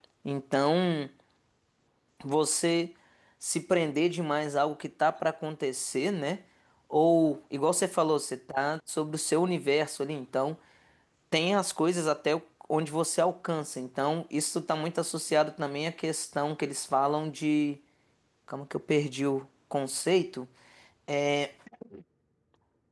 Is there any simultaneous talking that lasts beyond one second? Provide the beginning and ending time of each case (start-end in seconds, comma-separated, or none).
none